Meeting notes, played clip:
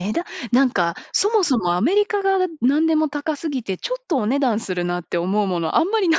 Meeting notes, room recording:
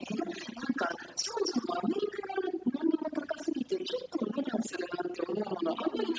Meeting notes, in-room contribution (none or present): present